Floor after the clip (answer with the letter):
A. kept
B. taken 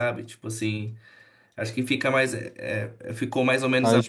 A